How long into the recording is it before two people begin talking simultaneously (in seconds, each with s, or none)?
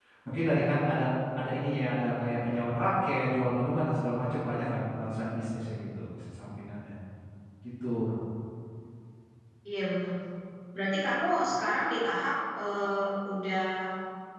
none